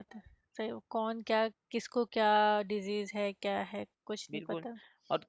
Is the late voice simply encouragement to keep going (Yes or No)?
No